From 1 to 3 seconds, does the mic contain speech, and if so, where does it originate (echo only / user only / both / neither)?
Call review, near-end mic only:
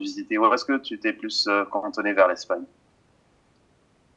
echo only